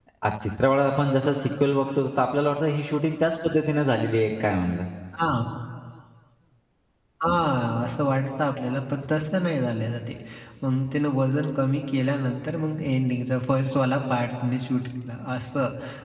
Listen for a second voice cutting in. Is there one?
No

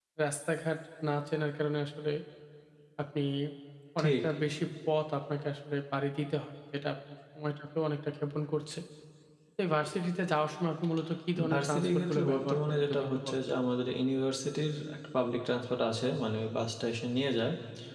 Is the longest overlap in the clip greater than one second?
Yes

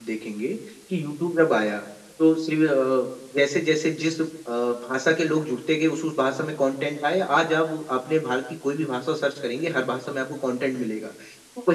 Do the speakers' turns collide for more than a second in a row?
No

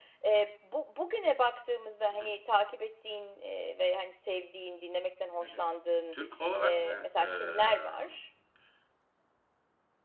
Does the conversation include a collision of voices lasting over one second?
Yes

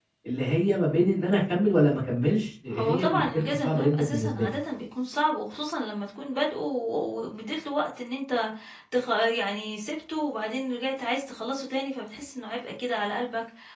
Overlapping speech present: Yes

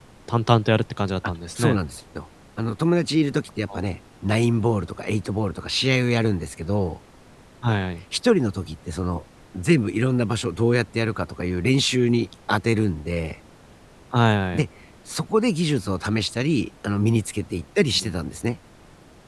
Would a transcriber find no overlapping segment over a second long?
Yes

